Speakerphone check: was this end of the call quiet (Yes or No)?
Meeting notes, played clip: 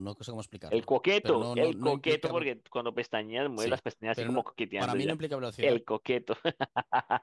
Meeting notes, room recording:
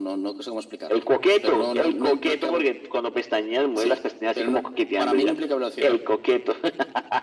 Yes